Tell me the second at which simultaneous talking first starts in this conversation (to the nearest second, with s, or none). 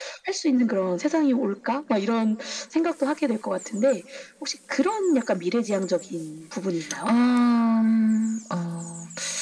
none